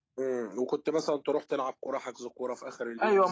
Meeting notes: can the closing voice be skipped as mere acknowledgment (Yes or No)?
No